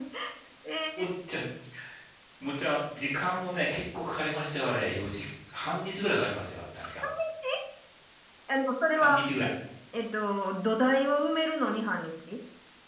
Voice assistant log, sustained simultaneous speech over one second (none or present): none